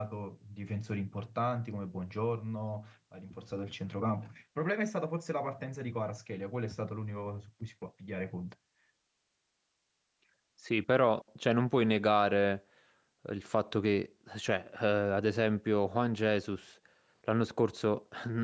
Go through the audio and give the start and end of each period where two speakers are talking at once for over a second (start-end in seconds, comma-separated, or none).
none